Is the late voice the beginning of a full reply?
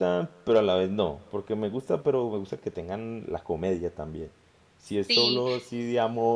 No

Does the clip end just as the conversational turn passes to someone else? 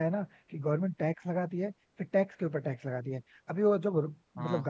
No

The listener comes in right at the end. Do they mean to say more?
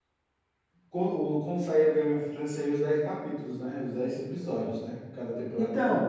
Yes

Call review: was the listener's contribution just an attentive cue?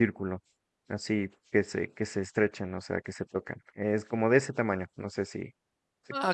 No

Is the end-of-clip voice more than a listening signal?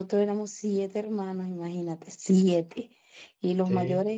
No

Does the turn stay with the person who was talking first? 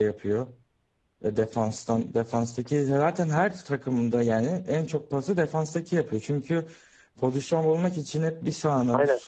Yes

